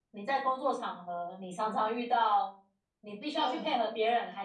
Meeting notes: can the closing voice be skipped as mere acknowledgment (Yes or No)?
Yes